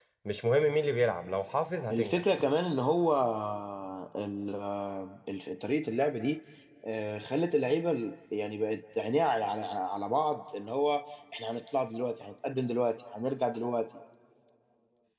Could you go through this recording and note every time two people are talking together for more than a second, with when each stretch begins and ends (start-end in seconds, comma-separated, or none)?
none